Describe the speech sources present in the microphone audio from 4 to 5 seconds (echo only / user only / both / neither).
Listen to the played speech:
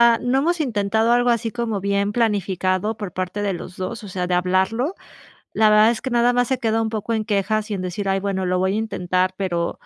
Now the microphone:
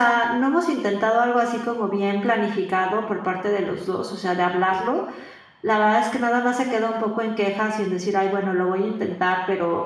echo only